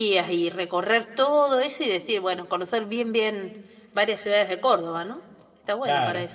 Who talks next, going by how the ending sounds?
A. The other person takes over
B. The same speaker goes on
A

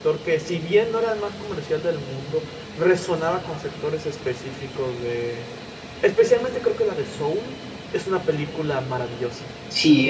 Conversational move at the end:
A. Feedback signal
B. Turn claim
B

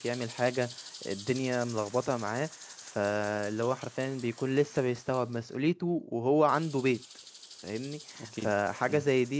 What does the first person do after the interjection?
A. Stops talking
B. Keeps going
B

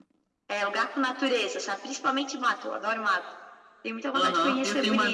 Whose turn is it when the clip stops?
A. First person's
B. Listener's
B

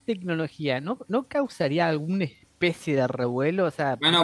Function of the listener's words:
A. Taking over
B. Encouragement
A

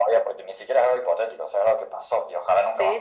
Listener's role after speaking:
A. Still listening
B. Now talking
B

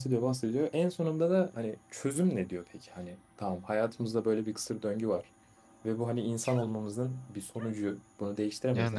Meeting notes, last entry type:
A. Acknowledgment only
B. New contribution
A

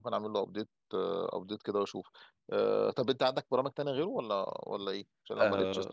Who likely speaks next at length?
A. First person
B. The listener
B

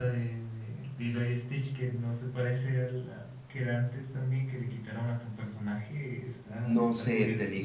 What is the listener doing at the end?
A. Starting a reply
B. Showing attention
A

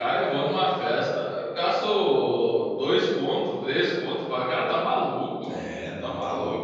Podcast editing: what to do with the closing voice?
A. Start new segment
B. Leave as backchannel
A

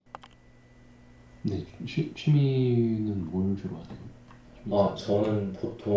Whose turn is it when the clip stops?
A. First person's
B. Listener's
B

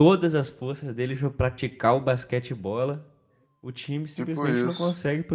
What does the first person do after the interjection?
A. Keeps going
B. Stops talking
A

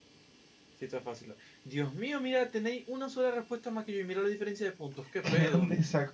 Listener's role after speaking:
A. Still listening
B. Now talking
B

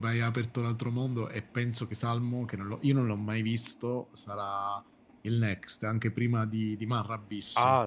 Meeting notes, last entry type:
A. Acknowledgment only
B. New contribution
B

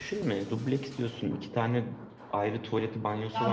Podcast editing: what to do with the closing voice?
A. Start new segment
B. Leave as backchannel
A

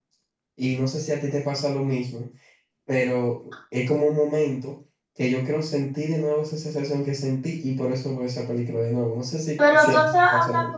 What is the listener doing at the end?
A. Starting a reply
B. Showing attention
A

